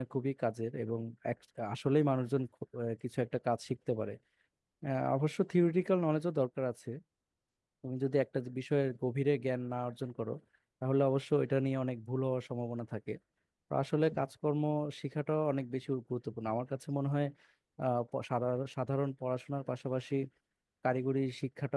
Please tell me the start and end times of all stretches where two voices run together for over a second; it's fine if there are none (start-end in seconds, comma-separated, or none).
none